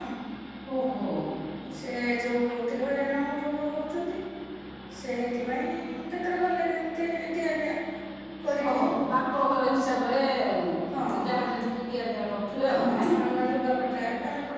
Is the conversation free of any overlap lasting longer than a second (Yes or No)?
Yes